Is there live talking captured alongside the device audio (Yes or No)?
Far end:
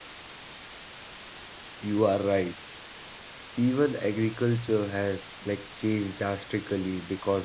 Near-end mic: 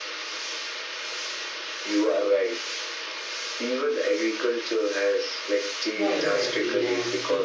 Yes